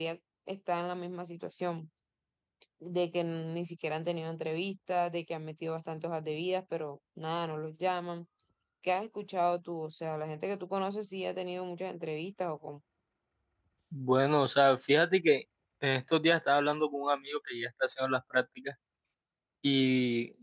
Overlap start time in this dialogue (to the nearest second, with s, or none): none